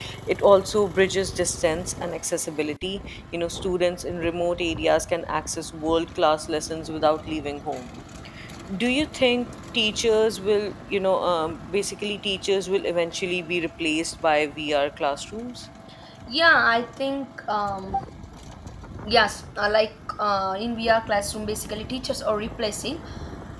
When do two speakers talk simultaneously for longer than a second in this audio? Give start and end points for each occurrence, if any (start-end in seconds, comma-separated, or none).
none